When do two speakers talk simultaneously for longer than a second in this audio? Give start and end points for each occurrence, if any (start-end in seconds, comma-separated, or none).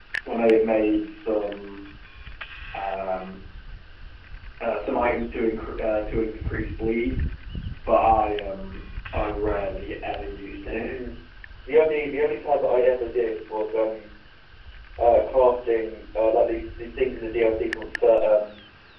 none